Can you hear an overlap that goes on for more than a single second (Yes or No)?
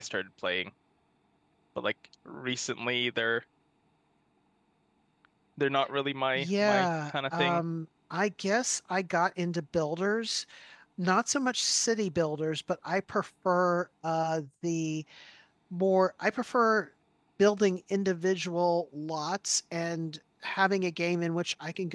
Yes